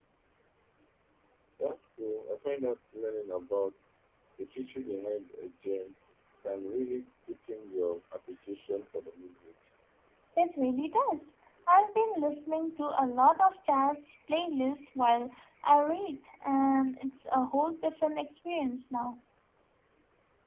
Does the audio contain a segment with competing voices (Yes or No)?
No